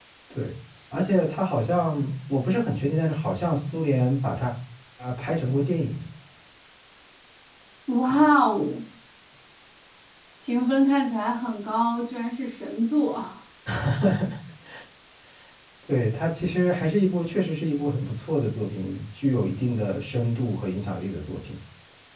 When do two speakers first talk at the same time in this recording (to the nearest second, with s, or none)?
none